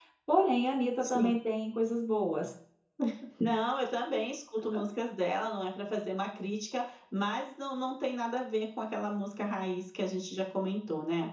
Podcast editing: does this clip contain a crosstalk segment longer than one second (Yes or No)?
No